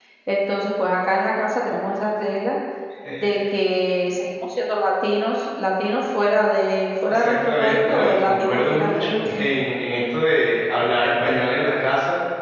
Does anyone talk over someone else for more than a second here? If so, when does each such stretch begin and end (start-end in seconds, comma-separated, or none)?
7.1-9.5